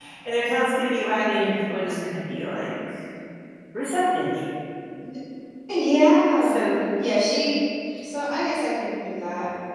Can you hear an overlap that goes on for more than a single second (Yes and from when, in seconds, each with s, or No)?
No